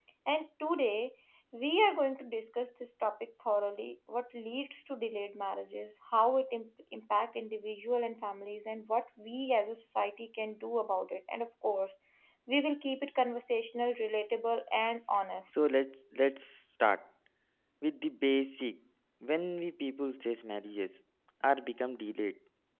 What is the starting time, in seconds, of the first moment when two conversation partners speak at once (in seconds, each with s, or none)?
none